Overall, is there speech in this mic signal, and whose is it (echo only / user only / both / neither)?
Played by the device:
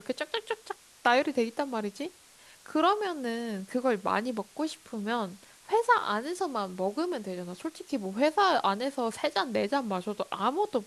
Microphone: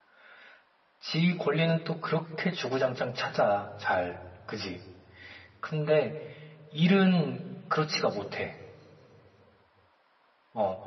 user only